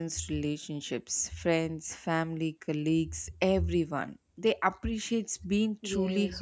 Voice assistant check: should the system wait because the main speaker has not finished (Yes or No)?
No